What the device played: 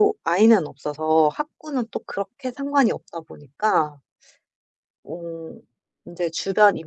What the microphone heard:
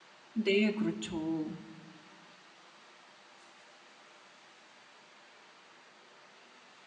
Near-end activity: present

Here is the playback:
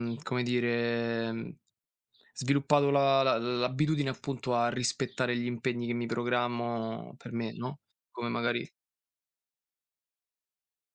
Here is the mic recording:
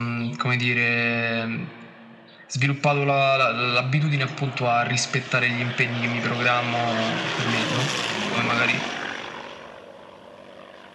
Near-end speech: none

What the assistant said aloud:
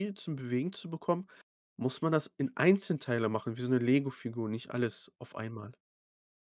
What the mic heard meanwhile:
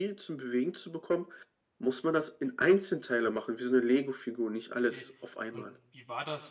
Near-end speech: present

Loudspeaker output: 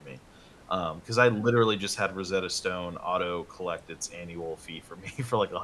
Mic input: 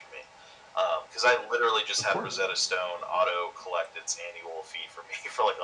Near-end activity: present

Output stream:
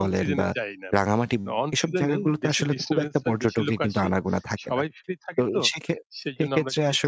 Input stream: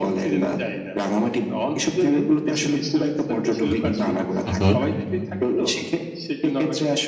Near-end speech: present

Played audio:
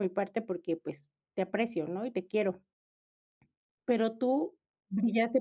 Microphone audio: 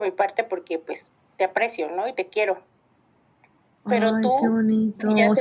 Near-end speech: present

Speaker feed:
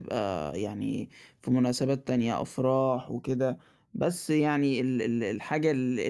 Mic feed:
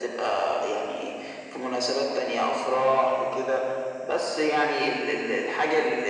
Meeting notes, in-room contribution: none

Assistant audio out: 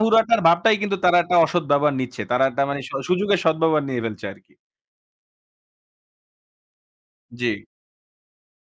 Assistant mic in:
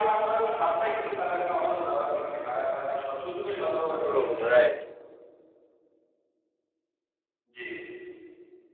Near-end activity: present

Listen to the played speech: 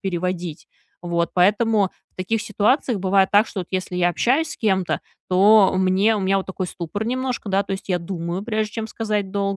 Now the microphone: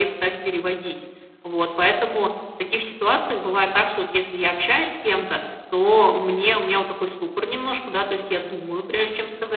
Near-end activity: none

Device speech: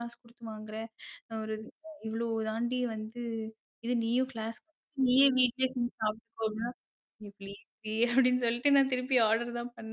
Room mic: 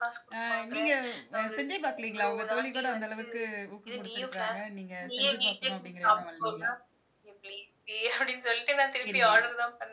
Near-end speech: present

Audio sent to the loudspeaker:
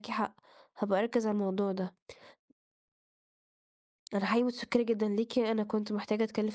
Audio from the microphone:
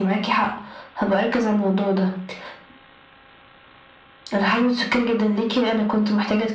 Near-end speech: none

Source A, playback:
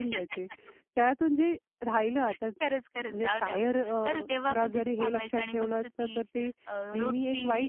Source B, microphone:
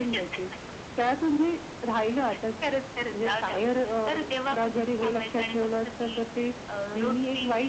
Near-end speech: none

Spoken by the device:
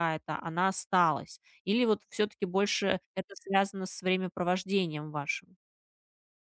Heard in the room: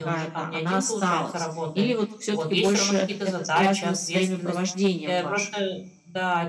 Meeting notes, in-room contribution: present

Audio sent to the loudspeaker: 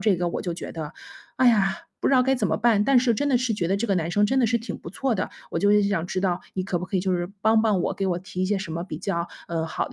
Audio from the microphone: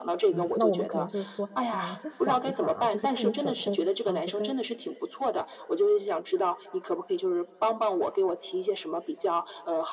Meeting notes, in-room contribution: present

